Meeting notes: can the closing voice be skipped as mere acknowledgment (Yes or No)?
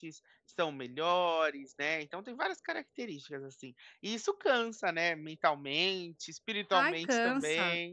No